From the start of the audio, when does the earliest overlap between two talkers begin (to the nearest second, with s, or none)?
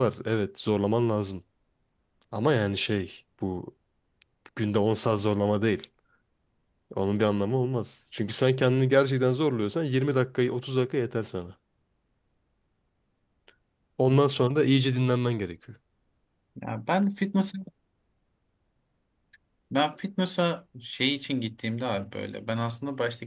none